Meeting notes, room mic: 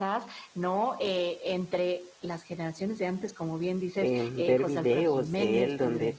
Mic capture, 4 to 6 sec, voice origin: both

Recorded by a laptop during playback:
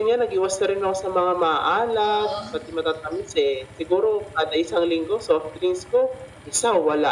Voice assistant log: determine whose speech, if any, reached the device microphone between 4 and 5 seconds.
echo only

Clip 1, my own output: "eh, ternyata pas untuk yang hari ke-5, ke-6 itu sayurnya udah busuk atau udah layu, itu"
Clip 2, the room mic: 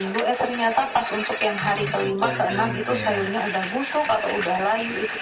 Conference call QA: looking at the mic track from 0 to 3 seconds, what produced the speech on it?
both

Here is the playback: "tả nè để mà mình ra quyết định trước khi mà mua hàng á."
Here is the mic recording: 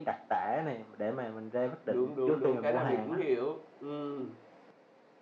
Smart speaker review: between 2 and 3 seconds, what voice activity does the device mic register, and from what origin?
both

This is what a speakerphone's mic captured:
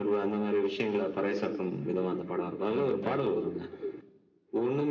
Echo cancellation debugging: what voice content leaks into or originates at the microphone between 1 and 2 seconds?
echo only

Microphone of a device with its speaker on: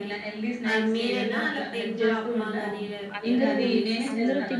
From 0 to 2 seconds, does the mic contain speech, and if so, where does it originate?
echo only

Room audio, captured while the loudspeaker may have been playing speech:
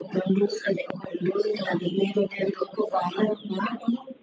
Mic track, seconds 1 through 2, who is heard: echo only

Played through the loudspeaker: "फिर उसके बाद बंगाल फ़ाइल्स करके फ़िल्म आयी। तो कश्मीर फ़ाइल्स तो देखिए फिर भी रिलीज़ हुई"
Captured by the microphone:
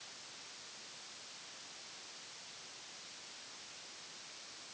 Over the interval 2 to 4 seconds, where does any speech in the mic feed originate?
neither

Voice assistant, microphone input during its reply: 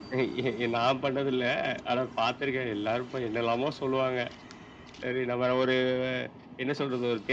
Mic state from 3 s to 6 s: echo only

